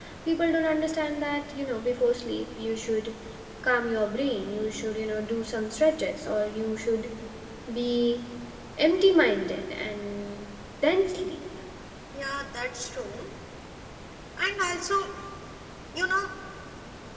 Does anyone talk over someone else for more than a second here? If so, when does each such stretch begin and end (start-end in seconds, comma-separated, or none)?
none